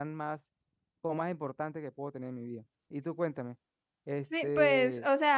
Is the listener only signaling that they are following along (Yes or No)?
No